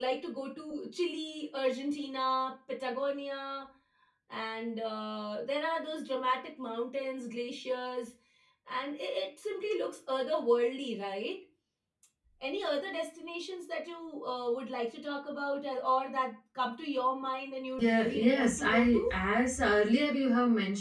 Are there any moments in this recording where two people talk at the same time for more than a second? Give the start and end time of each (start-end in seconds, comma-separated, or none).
17.8-19.1